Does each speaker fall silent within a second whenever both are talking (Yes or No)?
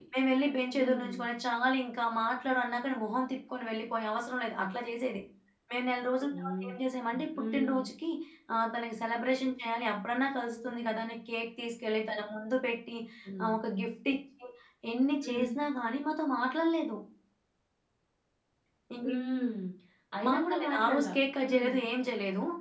No